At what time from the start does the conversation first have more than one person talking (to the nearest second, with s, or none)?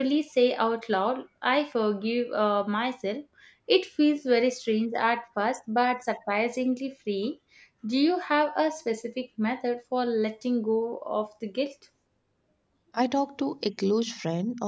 none